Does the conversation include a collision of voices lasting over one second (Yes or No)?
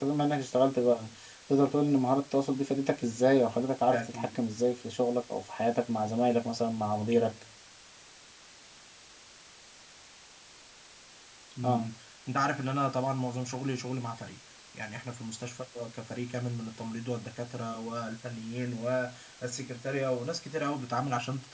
No